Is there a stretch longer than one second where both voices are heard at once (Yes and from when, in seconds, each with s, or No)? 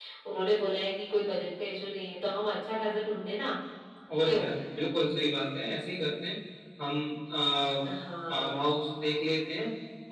No